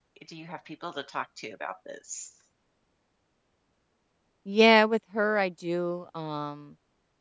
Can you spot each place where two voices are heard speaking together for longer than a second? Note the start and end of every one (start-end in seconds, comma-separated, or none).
none